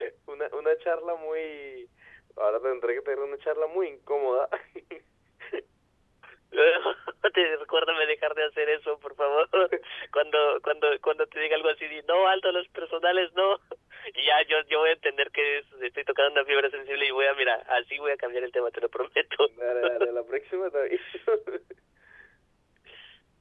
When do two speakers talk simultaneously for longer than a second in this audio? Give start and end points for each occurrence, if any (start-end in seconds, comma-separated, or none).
none